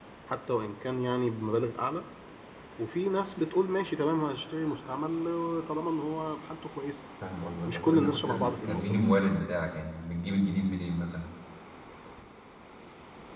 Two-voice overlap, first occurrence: 8 s

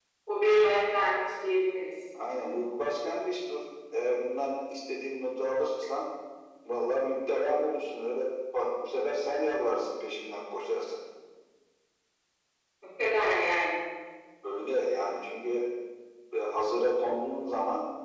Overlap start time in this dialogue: none

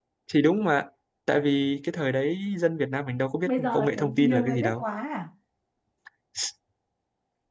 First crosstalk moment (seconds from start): 3 s

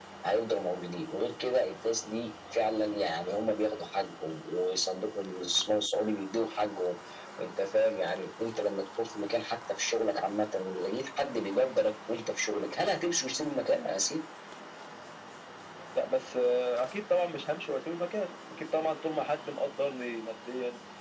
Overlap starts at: none

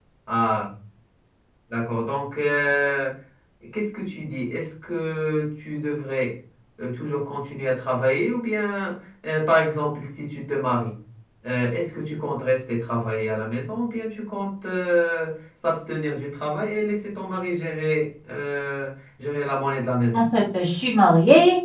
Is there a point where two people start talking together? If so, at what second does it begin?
none

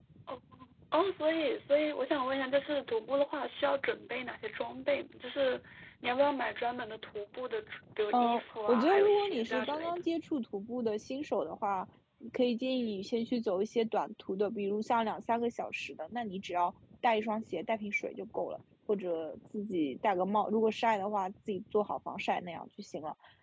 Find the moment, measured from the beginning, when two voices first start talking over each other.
8 s

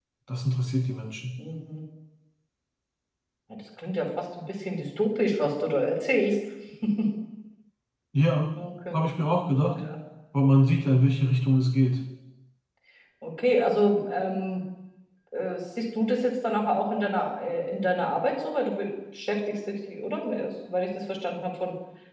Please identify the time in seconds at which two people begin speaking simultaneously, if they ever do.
none

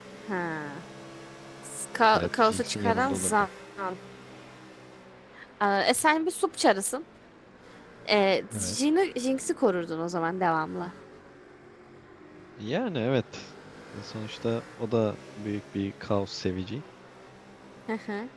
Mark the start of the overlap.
2 s

